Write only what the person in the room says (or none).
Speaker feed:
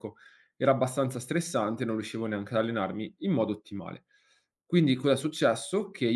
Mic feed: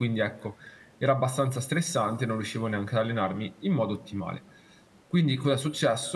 none